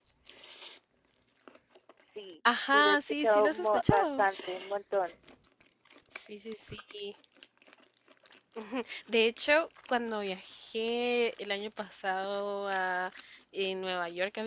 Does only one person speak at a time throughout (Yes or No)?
No